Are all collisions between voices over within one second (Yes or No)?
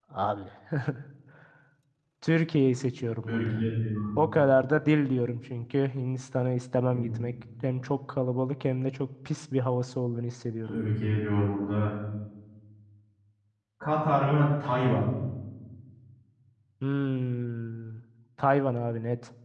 Yes